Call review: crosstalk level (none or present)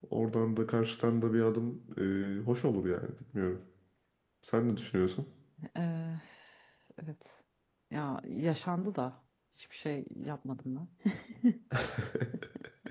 none